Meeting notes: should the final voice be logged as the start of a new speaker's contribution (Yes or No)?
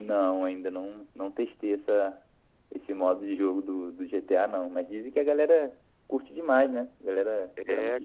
Yes